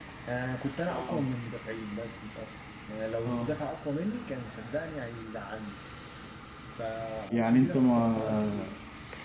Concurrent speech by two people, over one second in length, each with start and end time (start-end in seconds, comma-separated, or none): 7.3-8.7